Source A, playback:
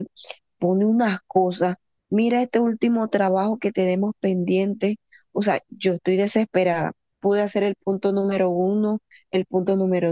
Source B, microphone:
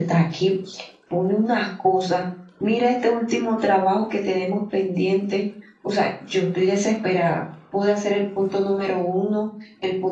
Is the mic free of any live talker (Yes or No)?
Yes